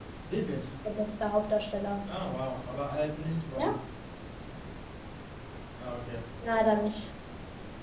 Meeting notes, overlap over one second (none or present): none